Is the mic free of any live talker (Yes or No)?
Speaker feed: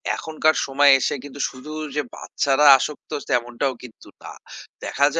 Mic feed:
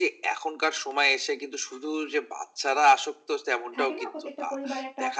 No